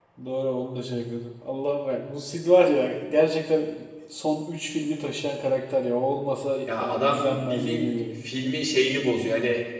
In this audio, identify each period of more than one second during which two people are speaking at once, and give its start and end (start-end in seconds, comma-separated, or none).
6.7-8.0